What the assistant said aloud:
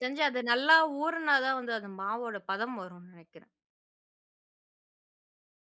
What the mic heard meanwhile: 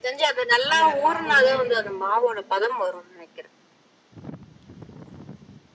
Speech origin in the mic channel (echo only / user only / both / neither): both